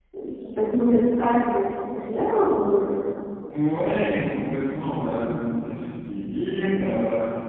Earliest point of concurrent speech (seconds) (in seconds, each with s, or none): none